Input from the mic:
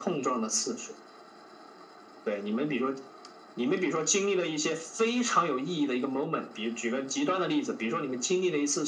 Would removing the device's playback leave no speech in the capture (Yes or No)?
Yes